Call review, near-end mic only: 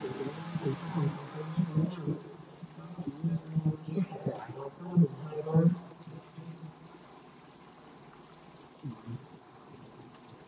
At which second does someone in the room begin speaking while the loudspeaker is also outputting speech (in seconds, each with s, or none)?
none